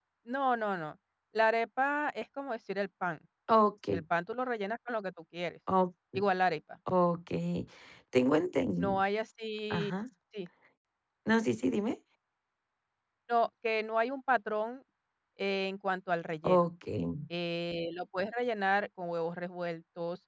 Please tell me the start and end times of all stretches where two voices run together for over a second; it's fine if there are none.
none

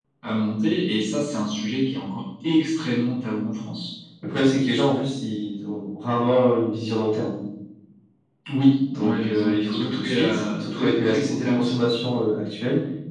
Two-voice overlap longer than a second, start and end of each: 8.9-11.7

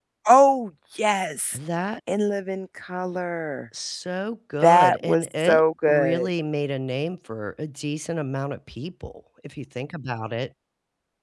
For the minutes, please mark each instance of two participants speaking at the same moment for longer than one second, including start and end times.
4.6-6.3

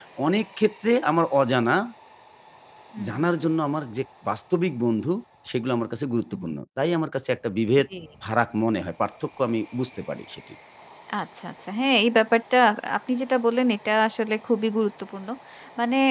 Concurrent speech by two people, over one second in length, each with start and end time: none

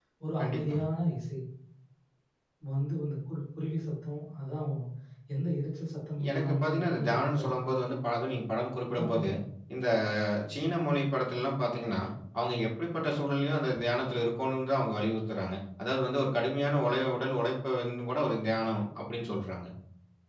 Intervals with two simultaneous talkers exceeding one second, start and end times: 6.3-7.5

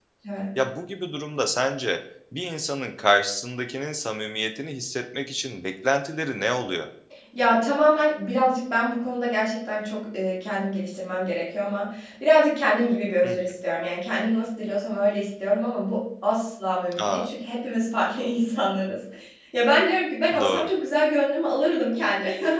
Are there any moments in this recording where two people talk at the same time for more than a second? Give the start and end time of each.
none

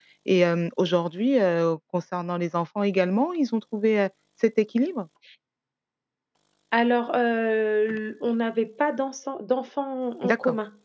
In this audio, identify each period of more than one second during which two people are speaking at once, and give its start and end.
none

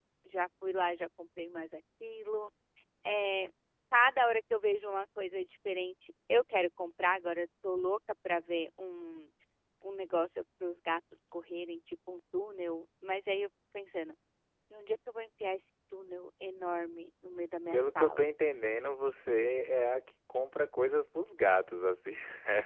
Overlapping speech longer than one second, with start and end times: none

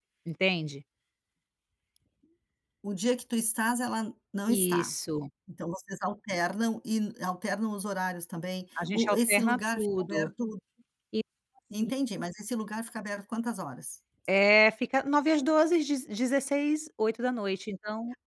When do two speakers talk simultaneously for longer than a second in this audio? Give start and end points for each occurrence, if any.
8.8-10.3

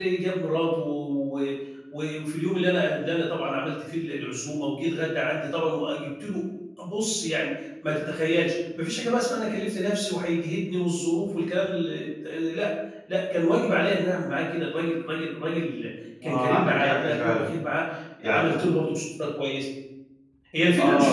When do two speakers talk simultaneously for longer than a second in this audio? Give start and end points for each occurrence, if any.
16.2-17.5

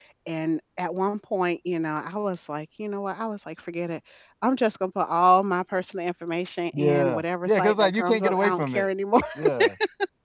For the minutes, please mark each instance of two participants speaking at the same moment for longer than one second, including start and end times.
6.8-8.9

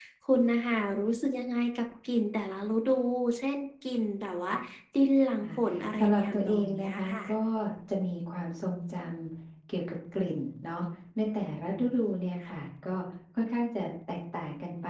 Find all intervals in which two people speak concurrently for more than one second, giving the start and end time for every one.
6.0-7.3

